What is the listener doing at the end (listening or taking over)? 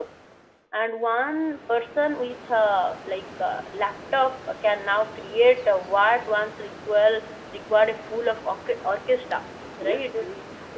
listening